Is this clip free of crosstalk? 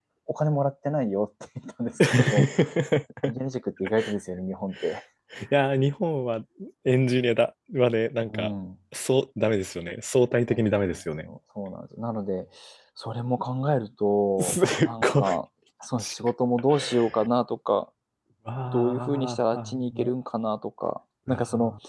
No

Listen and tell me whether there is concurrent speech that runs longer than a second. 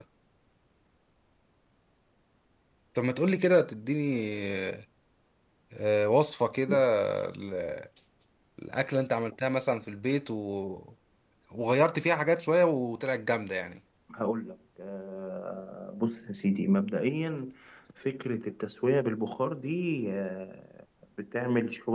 No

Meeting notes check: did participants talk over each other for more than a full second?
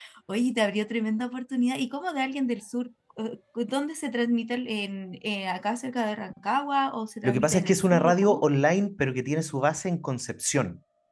Yes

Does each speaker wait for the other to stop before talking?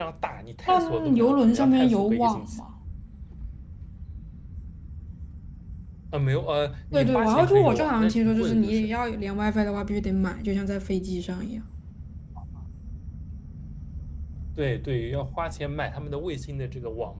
No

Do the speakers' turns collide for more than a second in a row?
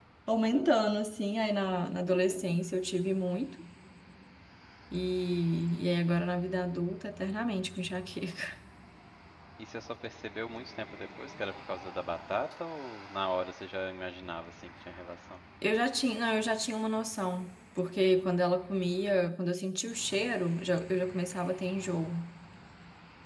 No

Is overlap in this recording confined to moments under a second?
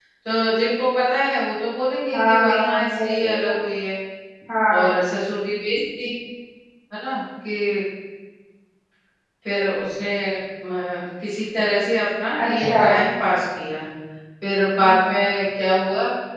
No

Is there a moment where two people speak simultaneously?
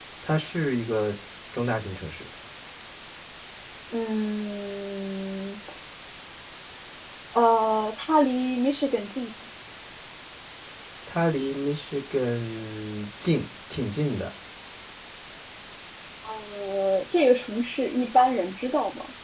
No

